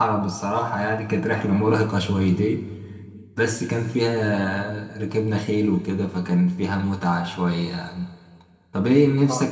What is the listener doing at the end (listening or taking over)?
taking over